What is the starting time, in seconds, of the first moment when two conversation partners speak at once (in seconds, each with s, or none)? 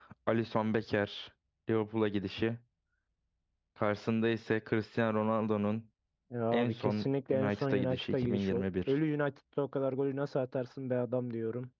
6.5 s